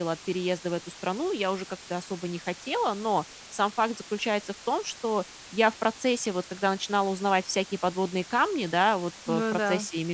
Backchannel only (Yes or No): Yes